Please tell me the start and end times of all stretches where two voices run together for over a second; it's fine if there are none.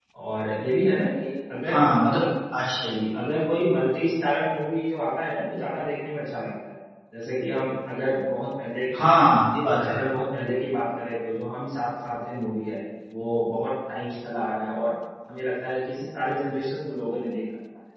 none

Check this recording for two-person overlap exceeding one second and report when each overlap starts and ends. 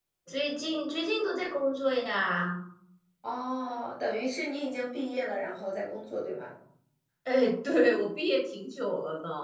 none

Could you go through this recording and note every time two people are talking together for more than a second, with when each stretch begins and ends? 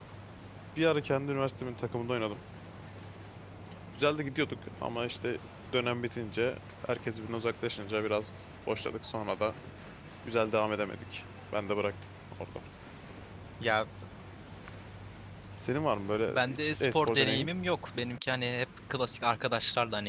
16.3-17.5

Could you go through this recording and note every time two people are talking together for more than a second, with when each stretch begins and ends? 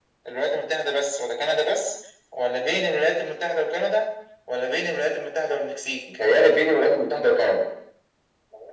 none

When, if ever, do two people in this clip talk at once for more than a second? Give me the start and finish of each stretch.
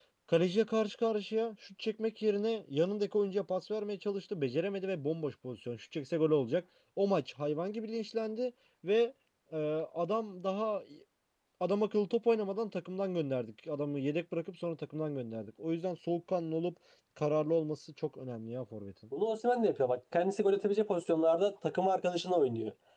none

